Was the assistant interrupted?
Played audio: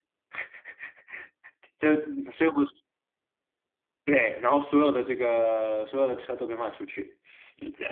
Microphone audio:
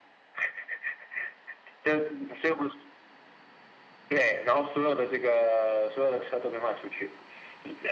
No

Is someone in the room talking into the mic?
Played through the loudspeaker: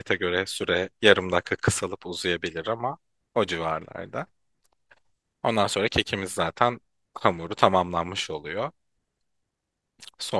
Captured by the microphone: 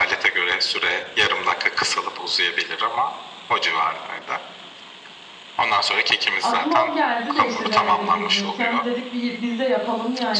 Yes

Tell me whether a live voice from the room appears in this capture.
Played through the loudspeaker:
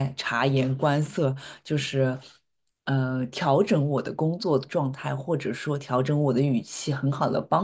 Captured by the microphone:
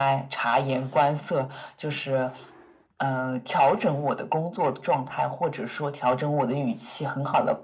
No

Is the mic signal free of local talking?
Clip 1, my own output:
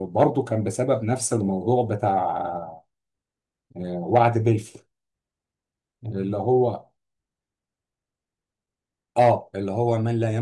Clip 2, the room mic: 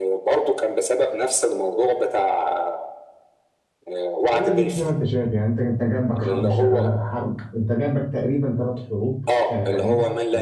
No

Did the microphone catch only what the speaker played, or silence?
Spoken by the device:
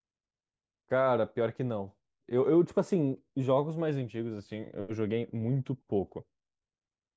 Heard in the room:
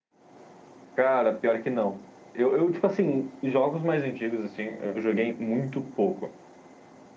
Yes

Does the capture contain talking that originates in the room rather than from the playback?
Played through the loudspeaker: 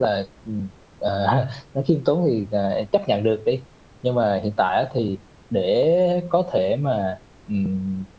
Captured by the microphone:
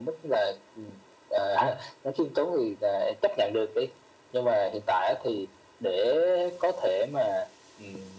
No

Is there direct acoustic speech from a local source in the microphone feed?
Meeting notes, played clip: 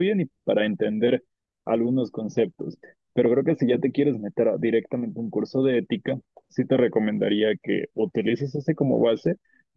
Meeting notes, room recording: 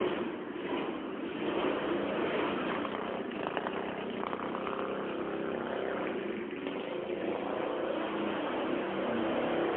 No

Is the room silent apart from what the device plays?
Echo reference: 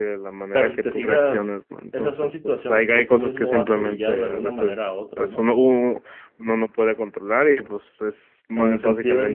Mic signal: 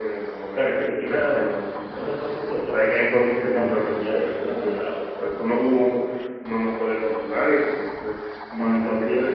Yes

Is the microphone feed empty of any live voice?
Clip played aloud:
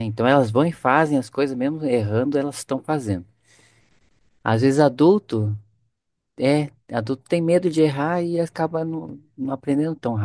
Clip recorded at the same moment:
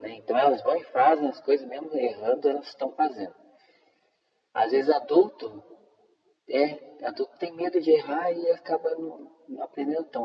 Yes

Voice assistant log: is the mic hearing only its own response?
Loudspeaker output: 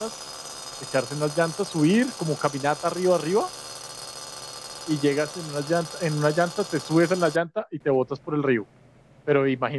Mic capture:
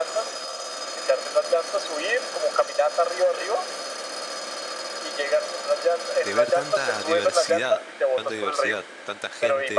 No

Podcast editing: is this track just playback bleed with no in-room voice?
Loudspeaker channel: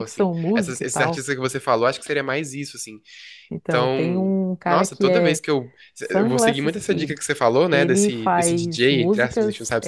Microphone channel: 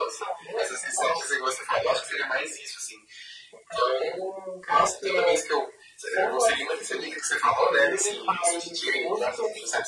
Yes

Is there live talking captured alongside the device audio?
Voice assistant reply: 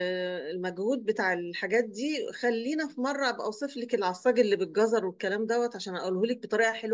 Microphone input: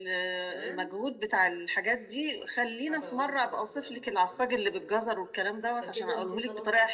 Yes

